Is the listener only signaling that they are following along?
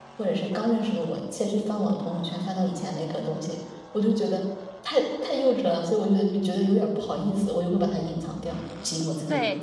No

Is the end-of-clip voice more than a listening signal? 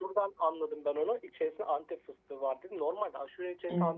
No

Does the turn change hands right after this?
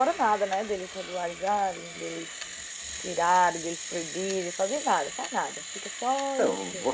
Yes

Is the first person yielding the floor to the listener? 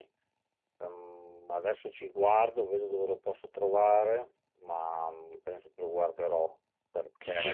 Yes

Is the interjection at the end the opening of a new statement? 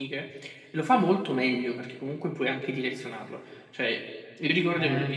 No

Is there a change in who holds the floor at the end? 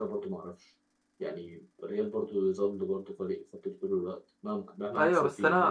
Yes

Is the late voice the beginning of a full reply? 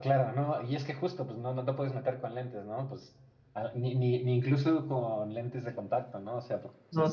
Yes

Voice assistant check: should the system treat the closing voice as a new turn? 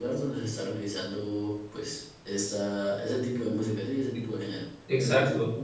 Yes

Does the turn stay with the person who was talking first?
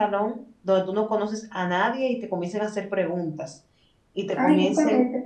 No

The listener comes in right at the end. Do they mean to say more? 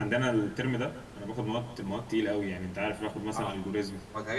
Yes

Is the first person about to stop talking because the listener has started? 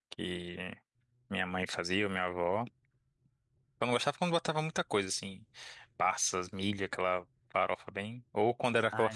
No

